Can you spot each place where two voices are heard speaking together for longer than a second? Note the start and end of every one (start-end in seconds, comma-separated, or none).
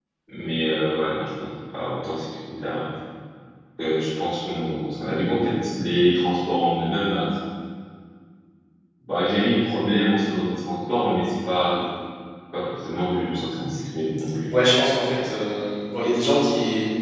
none